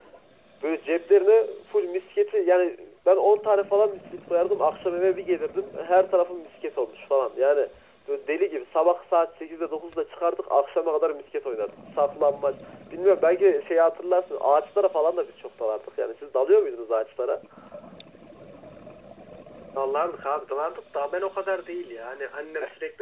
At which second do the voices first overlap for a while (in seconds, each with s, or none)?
none